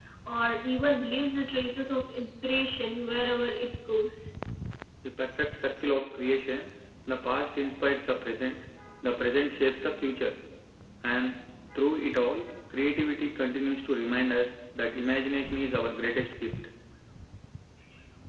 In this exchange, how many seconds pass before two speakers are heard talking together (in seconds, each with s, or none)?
none